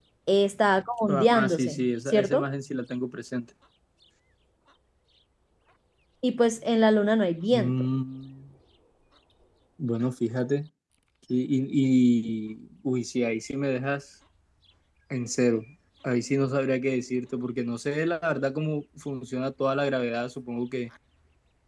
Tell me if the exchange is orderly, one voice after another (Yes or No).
No